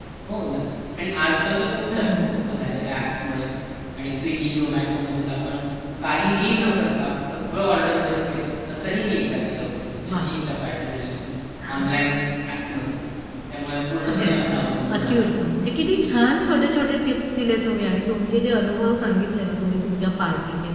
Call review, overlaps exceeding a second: none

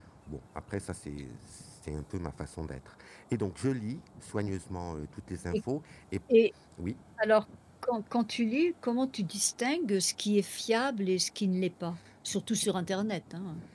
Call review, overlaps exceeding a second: none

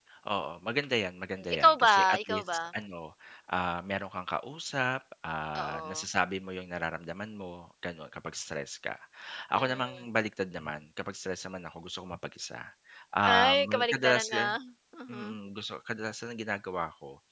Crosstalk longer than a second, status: present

